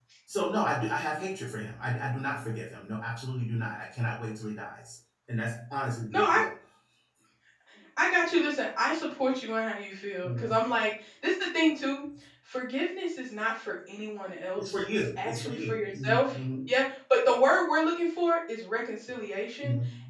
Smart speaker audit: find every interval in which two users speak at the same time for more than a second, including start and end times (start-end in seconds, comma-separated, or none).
14.6-16.3